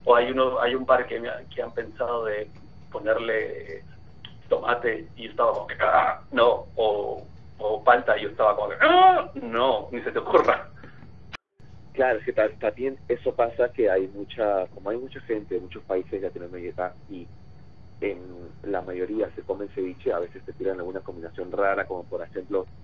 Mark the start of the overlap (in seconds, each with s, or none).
none